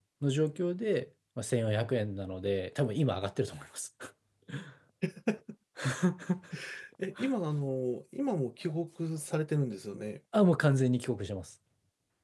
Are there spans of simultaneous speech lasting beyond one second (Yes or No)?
No